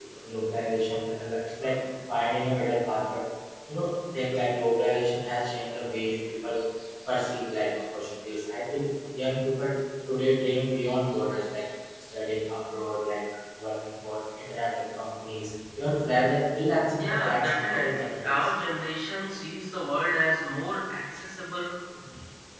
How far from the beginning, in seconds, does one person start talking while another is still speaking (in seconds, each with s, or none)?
17.0 s